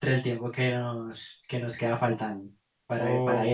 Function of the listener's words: taking over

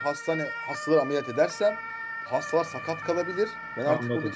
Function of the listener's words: listening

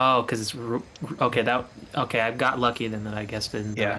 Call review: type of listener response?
taking over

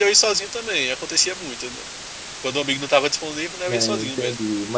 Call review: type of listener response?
taking over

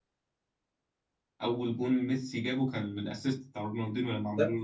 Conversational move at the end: taking over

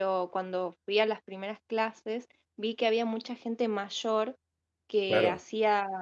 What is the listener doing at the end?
listening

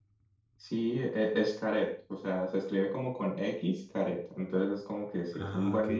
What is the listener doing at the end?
listening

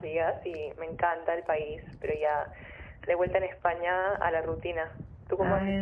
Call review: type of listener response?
taking over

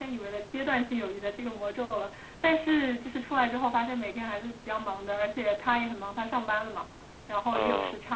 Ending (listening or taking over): listening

